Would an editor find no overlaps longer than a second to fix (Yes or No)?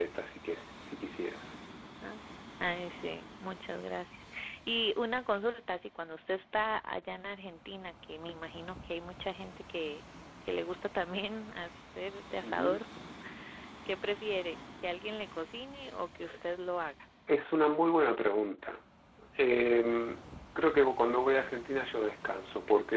Yes